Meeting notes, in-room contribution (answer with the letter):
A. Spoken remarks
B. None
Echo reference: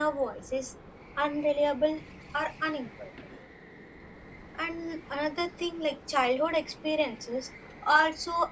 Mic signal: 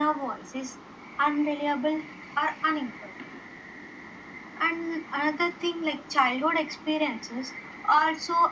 B